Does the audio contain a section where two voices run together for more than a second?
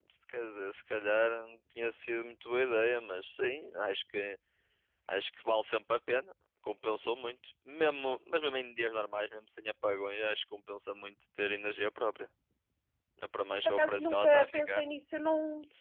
Yes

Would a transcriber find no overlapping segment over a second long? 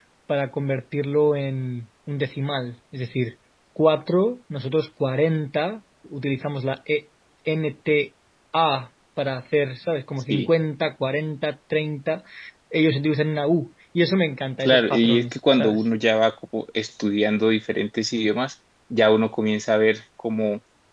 No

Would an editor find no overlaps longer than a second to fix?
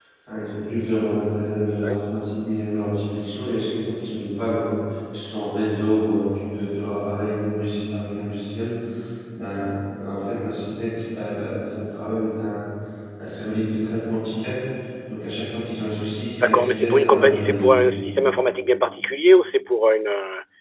No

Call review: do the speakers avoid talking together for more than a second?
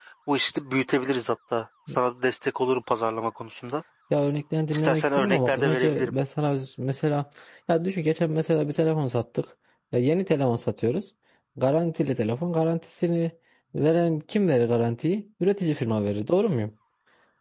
No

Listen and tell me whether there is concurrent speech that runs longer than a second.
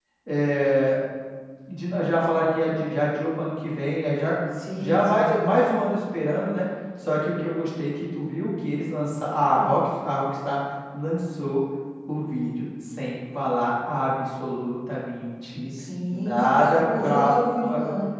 Yes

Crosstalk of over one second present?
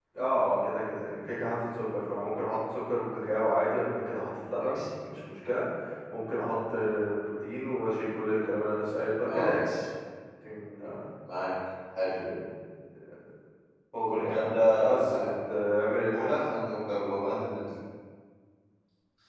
No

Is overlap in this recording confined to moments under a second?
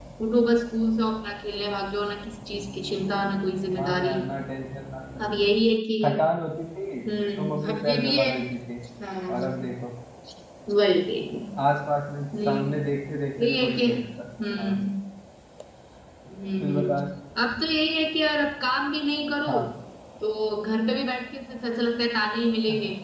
No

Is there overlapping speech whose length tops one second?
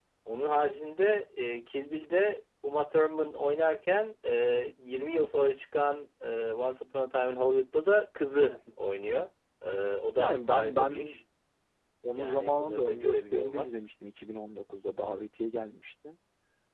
Yes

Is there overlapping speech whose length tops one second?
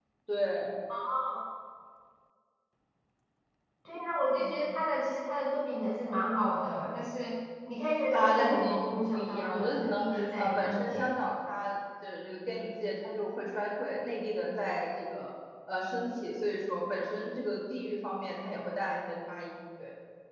Yes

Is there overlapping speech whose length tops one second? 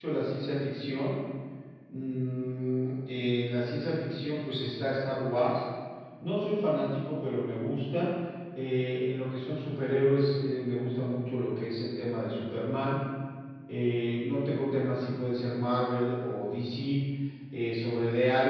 No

